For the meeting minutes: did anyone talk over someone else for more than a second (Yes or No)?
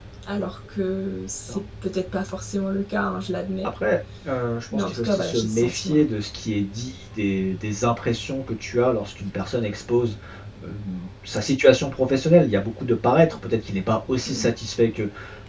Yes